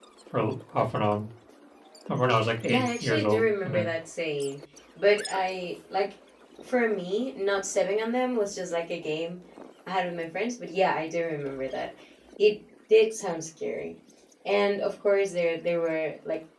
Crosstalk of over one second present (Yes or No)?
Yes